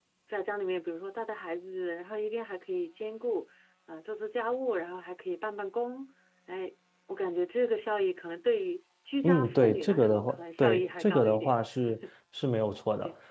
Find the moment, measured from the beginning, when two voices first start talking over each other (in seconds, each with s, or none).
9.2 s